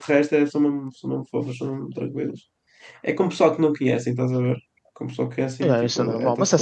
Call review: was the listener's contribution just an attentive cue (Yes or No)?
No